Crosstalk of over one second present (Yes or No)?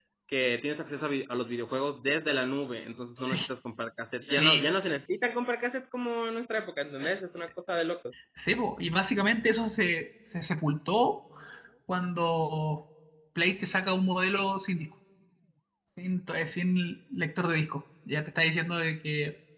No